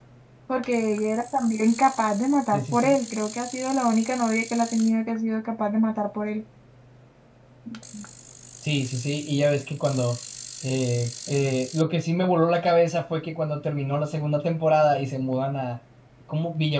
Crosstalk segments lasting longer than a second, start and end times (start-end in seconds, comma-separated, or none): none